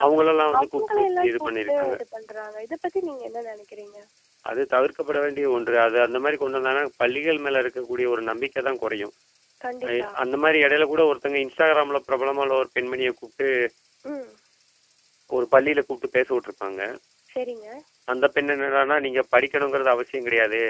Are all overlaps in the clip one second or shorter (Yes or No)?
No